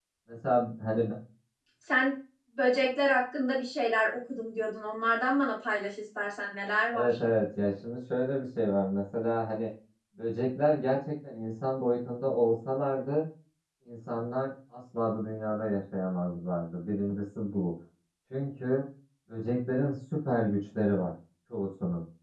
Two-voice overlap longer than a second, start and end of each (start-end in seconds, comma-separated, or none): none